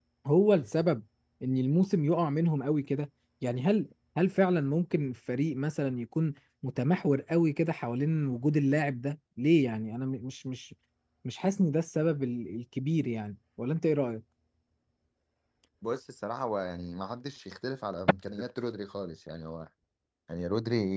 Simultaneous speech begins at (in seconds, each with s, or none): none